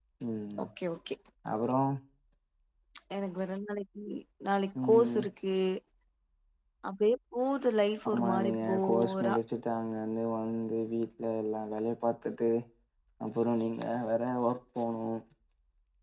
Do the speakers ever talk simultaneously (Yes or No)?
Yes